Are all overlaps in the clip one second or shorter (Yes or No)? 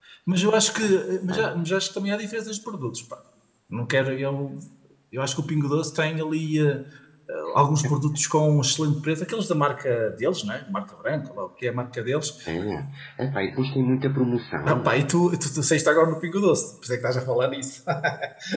Yes